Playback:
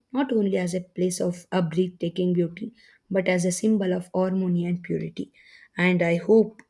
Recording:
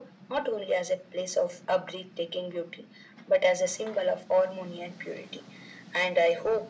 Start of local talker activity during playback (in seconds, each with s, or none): none